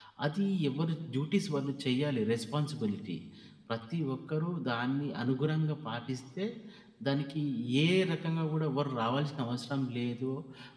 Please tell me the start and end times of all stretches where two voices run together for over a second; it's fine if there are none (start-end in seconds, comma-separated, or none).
none